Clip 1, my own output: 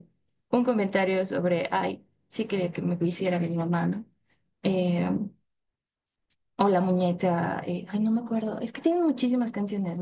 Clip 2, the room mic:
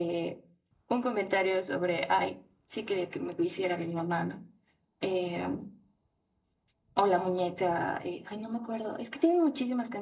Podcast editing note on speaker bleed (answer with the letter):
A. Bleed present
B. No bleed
A